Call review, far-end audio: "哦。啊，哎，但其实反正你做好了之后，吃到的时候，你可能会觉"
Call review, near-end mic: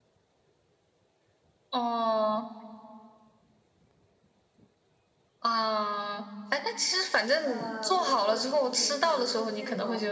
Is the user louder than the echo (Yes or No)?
No